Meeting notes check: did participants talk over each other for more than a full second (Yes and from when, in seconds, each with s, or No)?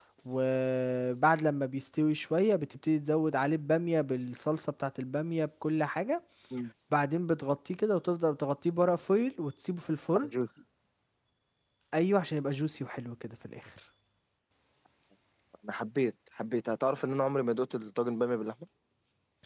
No